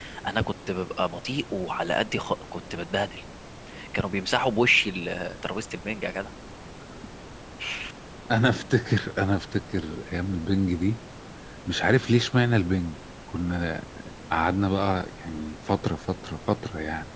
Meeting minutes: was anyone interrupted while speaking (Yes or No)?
No